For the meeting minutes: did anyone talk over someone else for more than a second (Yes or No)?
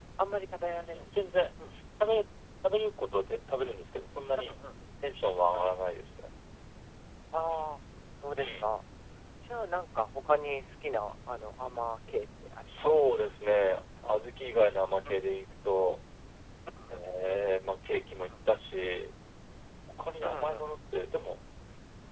No